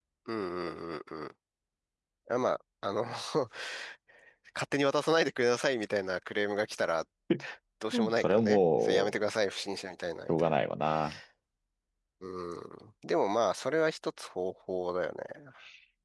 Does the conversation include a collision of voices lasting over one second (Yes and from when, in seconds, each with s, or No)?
Yes, from 8.0 s